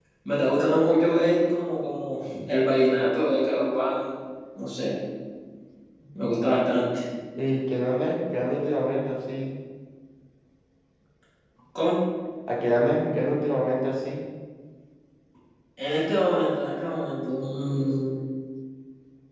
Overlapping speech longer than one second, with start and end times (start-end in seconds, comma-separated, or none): none